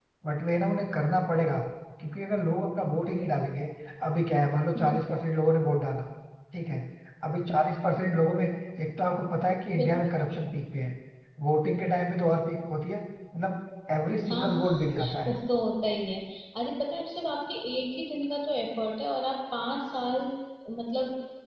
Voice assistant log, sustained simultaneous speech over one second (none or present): none